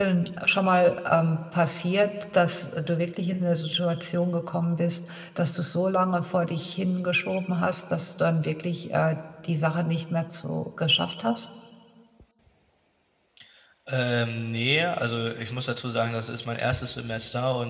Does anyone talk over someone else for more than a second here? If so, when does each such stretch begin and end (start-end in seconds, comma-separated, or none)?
none